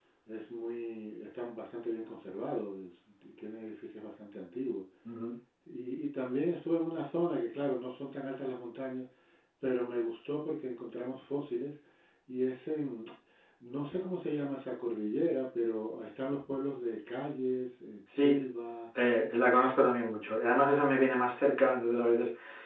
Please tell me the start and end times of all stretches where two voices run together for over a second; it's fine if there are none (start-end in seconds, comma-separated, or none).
none